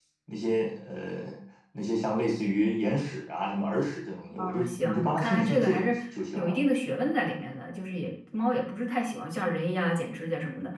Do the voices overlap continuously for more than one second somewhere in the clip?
Yes, from 4.4 s

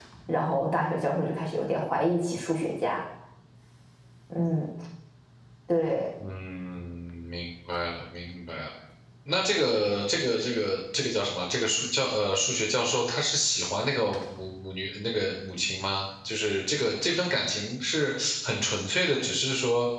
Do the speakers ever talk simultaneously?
No

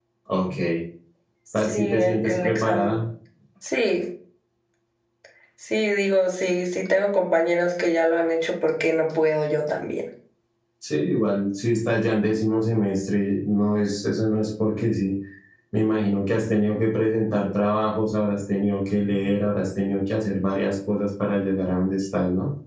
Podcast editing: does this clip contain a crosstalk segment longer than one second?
Yes, from 1.6 s

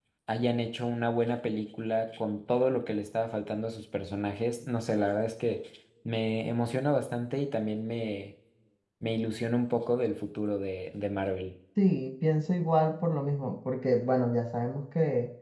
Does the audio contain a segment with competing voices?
No

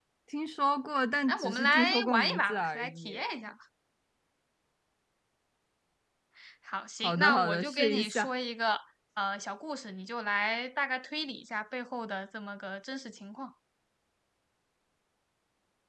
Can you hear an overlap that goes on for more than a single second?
Yes, from 1.3 s

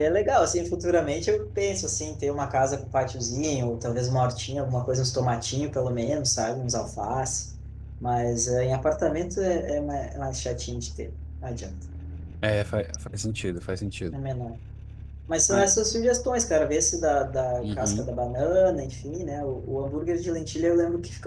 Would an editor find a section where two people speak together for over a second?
No

